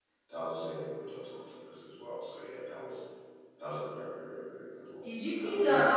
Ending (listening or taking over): taking over